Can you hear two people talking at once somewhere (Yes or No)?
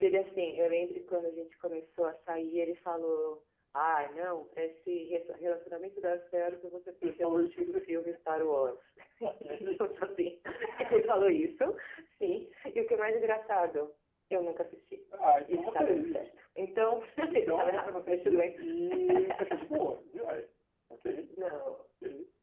Yes